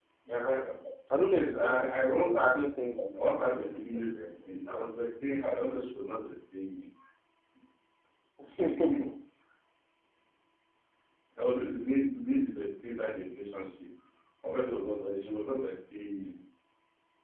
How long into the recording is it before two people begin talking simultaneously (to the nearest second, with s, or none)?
1 s